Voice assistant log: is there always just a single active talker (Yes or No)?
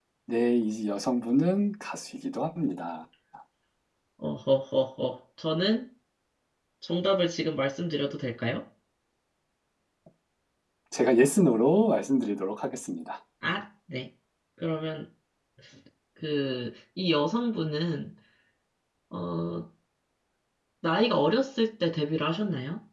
Yes